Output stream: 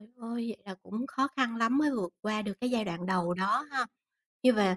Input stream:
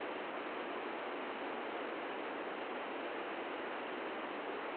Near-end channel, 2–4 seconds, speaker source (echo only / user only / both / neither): neither